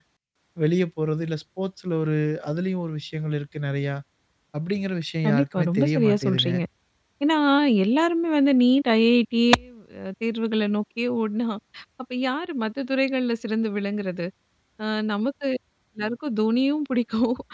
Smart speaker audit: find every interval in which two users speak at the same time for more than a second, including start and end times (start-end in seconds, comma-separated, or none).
5.2-6.5